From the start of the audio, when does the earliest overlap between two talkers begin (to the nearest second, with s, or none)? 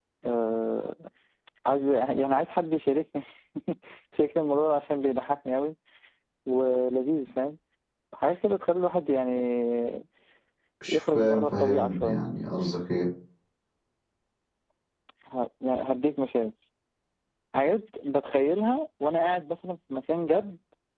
11 s